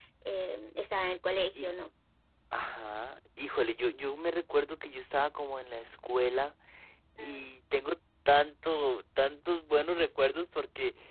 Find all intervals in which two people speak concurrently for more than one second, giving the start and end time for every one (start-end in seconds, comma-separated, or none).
none